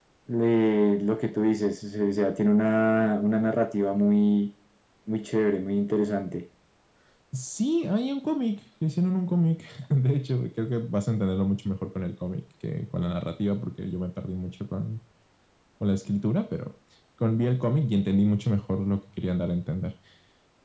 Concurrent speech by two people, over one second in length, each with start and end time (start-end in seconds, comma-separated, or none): none